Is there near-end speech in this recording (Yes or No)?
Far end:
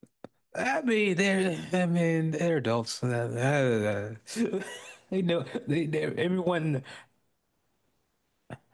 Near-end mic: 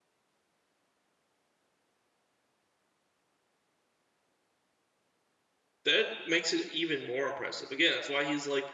Yes